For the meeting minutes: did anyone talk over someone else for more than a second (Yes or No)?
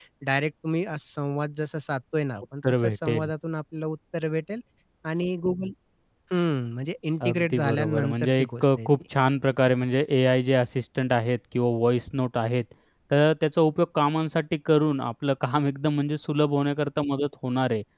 Yes